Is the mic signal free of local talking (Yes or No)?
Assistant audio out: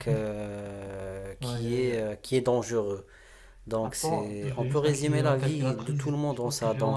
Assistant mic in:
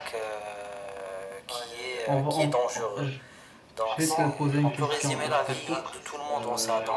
No